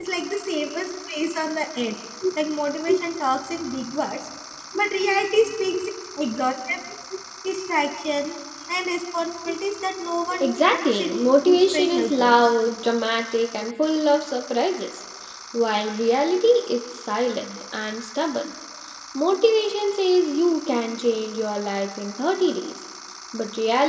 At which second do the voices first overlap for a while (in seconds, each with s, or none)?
10.4 s